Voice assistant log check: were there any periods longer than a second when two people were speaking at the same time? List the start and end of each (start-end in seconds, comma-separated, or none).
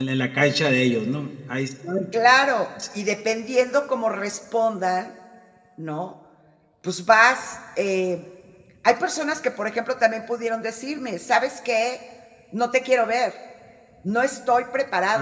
none